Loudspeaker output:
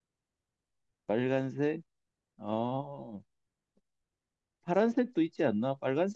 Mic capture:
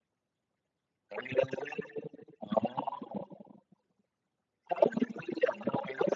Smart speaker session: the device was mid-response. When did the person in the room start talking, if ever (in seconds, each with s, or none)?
none